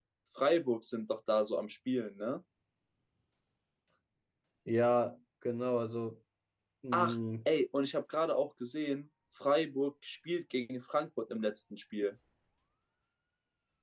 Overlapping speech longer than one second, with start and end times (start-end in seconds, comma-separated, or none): none